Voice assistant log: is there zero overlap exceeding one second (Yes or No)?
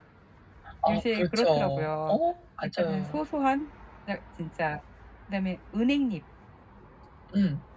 No